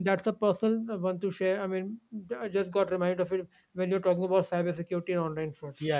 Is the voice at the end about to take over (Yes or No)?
Yes